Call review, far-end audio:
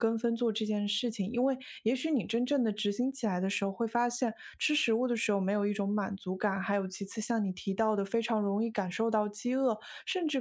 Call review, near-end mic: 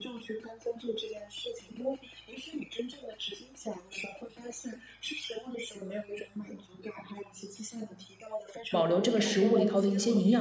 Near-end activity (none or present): present